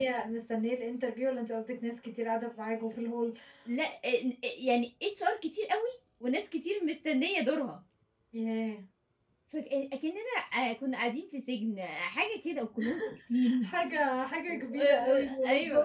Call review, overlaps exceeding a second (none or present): present